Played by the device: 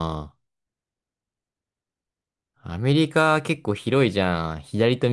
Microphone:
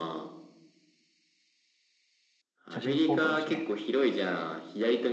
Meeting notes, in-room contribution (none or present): present